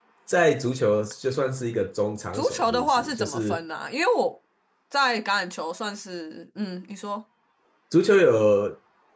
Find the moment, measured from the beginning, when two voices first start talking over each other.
2.3 s

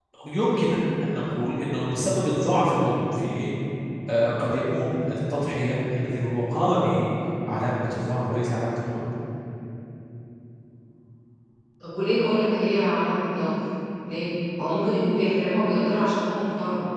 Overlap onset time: none

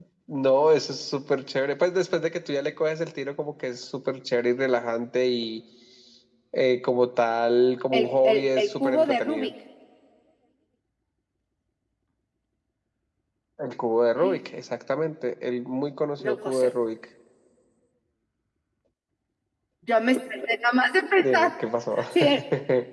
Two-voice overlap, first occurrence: 7.9 s

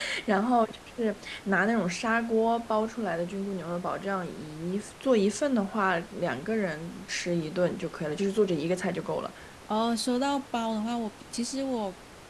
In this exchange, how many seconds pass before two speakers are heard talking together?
none

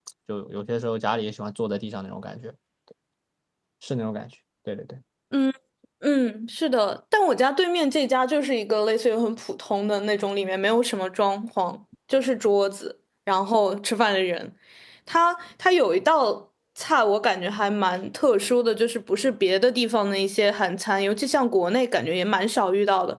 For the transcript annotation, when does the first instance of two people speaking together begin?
none

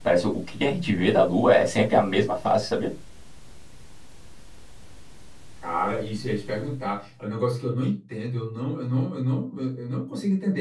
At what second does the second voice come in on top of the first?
none

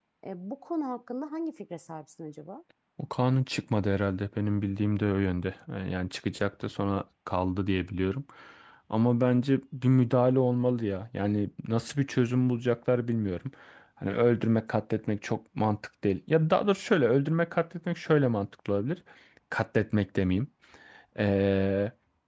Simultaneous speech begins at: none

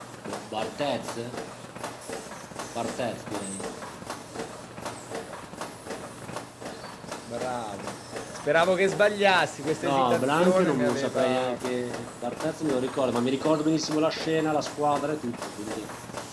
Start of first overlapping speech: 9.8 s

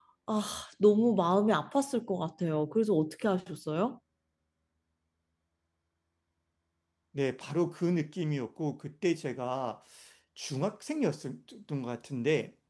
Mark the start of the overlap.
none

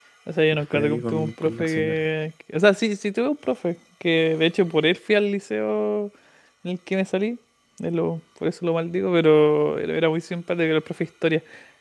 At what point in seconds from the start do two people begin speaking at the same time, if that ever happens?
0.5 s

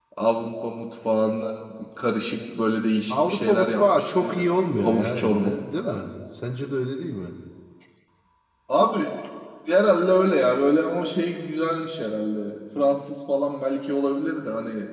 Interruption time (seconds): 3.1 s

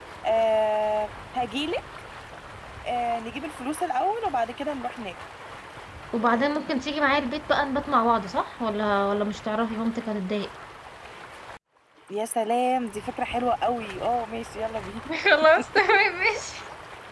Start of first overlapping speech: none

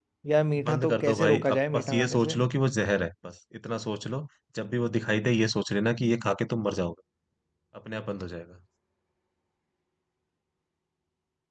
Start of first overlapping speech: 0.7 s

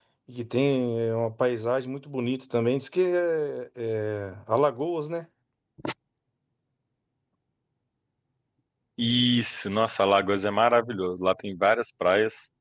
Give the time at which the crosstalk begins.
none

